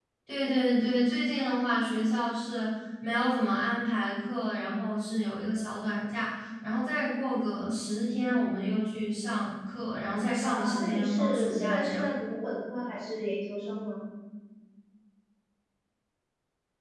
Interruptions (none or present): present